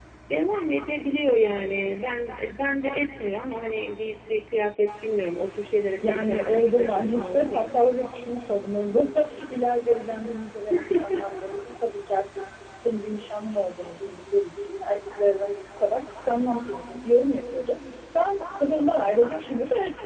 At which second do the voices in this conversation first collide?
6.0 s

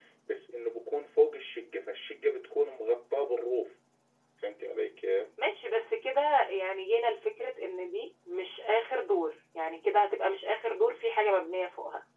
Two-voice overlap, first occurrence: none

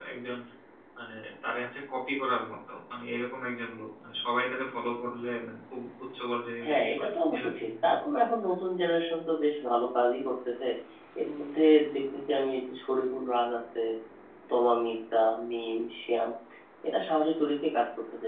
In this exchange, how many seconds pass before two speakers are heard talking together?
6.6 s

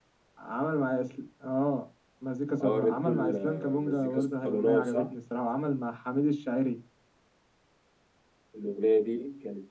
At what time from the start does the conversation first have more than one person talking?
2.6 s

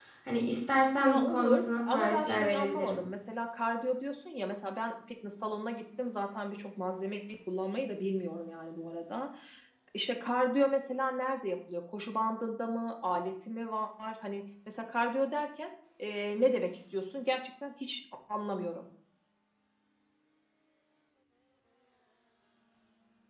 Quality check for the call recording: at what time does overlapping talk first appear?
1.0 s

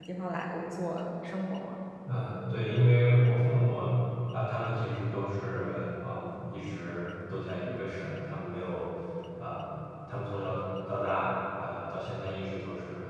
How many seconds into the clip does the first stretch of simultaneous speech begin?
none

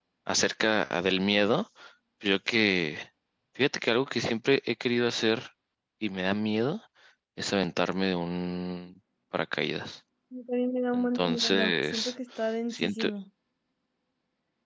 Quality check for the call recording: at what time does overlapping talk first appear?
10.9 s

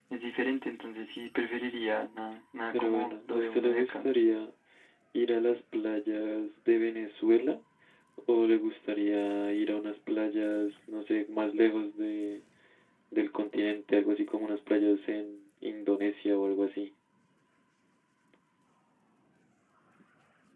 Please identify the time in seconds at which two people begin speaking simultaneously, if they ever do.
2.7 s

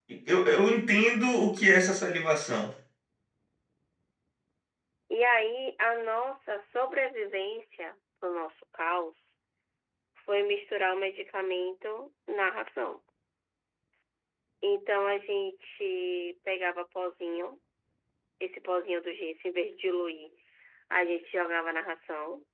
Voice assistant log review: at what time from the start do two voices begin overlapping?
none

